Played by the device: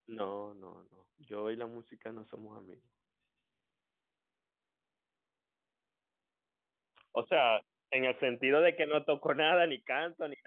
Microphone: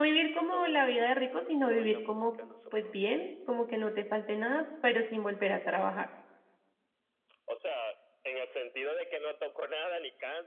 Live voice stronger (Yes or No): Yes